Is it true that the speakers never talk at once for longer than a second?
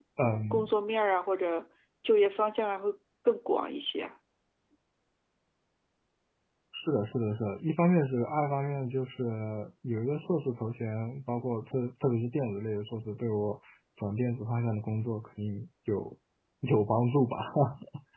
Yes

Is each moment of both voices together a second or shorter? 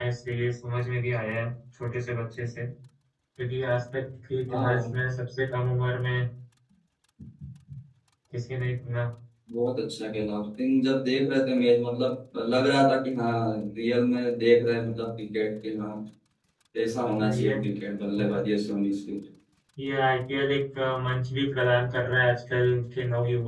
Yes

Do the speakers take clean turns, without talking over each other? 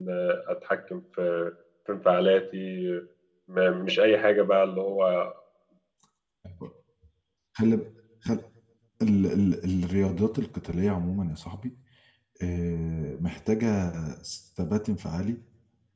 Yes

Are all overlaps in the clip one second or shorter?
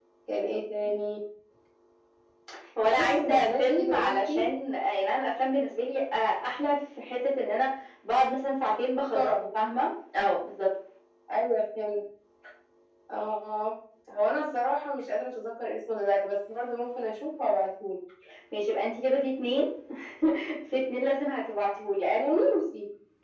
No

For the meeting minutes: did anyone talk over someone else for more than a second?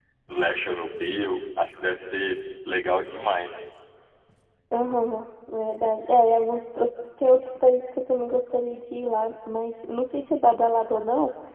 No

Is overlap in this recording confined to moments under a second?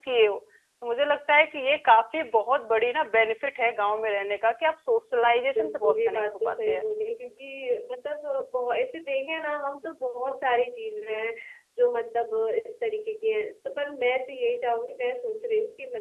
No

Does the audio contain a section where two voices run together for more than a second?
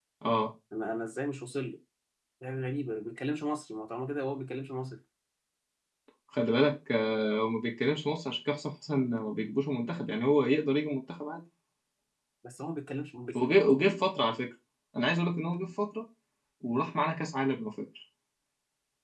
No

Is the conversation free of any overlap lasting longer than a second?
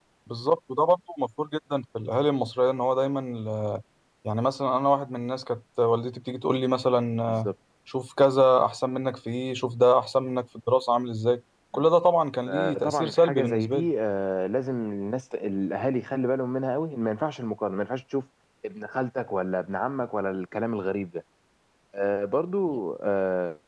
No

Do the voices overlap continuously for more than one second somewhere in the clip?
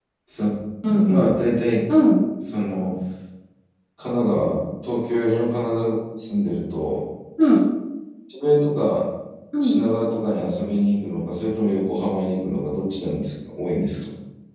No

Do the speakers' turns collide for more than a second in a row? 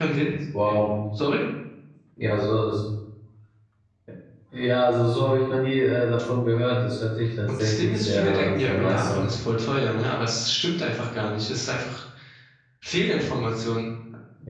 Yes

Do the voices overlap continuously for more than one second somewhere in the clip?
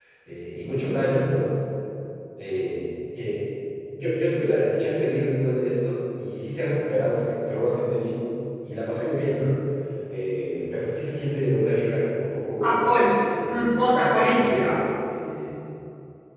Yes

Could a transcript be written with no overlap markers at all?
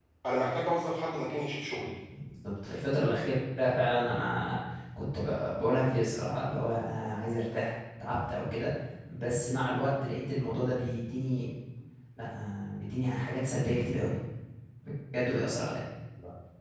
Yes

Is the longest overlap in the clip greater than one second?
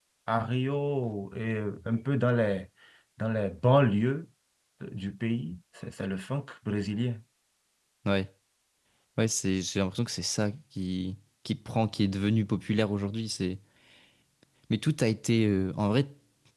No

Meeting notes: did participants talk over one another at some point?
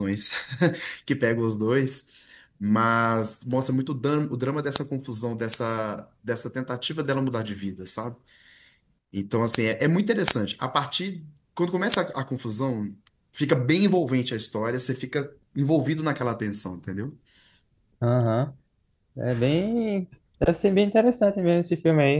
No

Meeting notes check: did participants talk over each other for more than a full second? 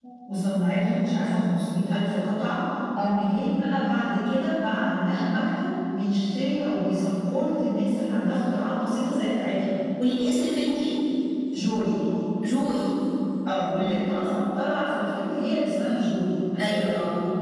No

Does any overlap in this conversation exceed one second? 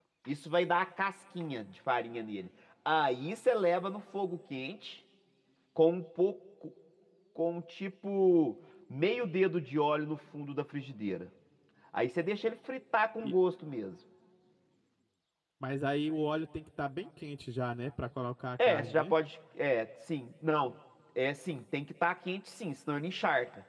No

